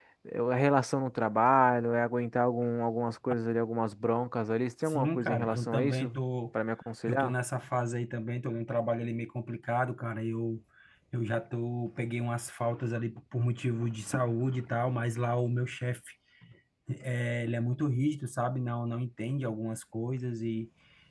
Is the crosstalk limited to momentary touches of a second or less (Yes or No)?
No